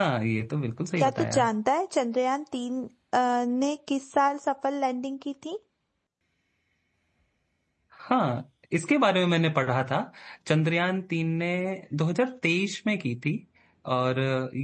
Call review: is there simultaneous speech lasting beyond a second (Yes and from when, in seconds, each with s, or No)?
No